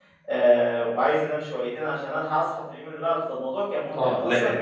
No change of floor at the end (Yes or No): No